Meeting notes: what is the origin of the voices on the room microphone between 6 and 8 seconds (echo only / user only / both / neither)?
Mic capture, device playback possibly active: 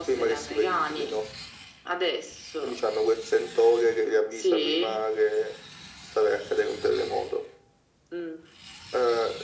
echo only